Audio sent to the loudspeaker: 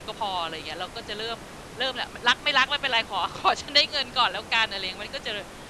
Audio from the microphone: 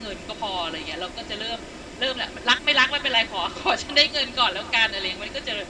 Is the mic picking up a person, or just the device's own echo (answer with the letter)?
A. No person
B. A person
A